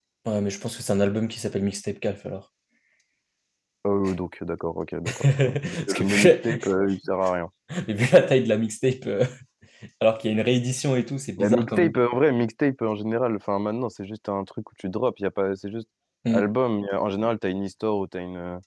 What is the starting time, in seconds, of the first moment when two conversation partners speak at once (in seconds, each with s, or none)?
5.2 s